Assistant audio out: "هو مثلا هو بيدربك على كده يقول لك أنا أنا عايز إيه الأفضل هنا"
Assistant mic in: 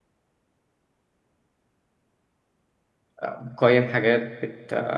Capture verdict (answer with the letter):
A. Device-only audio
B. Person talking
B